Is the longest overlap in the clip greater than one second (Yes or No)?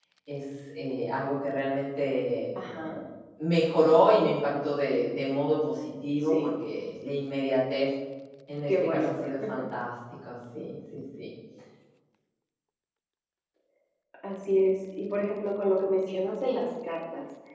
No